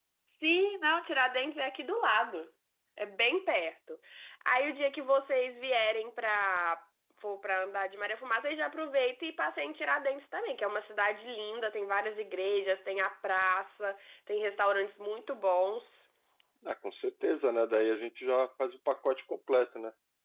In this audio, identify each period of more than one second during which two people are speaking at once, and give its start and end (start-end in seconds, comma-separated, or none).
none